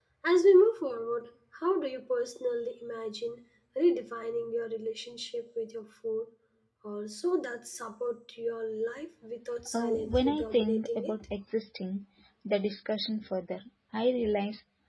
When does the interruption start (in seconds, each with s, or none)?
9.6 s